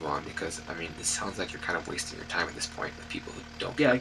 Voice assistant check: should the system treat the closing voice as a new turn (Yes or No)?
Yes